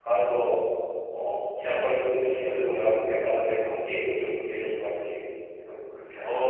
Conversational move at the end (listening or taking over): taking over